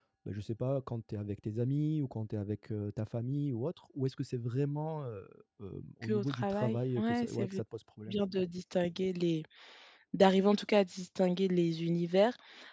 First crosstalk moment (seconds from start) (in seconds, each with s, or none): 6.0 s